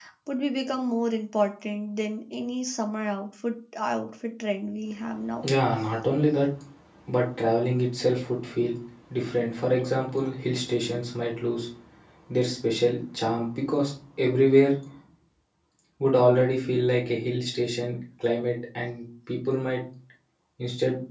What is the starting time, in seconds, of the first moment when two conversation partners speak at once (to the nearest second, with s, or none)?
none